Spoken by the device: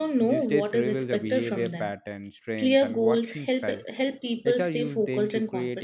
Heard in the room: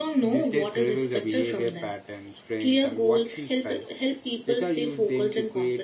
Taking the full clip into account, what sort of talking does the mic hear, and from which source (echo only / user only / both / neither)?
echo only